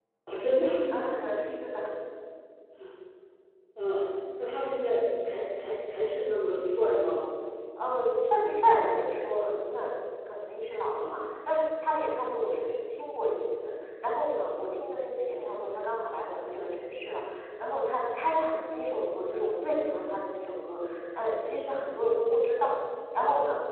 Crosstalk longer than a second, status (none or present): none